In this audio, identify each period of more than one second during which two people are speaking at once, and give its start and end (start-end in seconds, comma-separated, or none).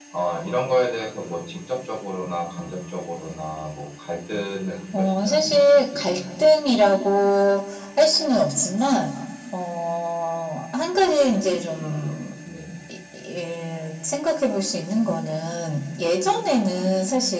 5.0-6.2